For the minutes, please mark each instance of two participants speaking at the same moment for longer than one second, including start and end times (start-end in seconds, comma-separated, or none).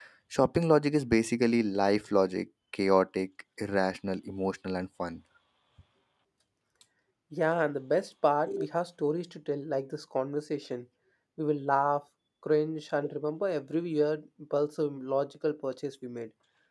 none